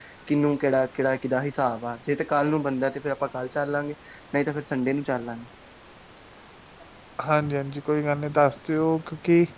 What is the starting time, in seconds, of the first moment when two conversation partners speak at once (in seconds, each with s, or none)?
none